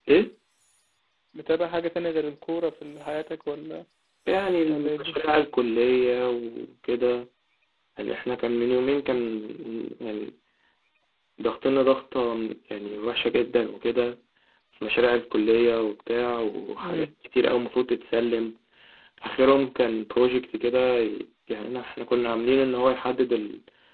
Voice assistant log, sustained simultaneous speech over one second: none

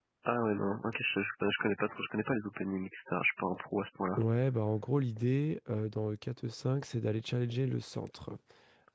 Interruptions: none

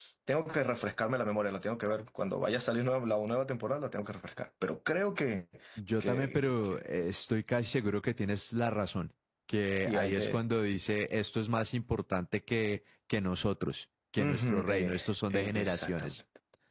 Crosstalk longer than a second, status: present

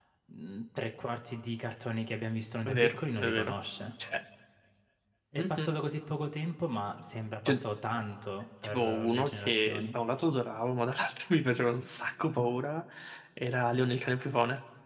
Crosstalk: present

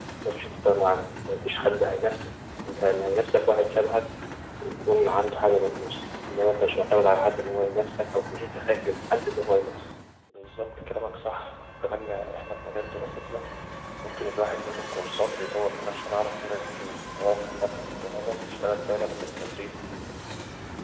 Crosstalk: none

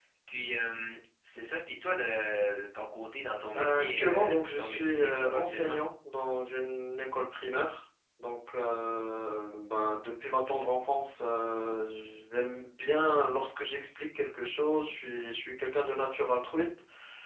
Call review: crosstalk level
present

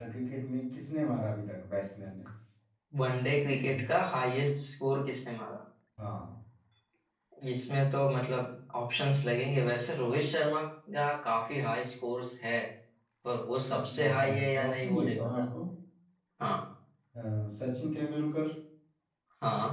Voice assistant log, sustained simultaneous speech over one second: present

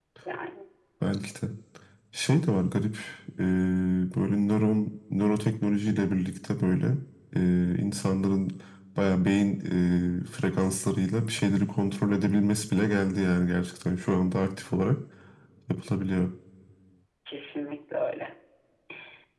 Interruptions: none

